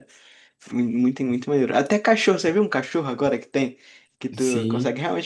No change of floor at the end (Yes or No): Yes